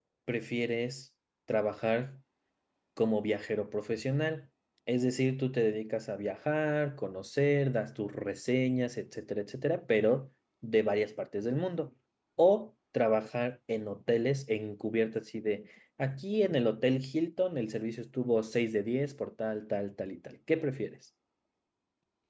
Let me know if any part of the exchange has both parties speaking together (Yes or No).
No